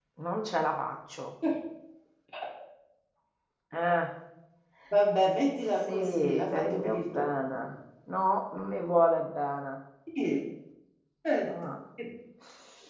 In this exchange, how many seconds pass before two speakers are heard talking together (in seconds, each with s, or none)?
5.9 s